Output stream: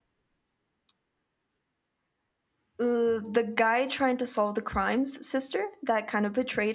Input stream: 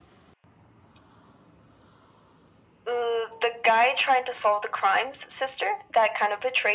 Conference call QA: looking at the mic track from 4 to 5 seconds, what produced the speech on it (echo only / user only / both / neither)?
echo only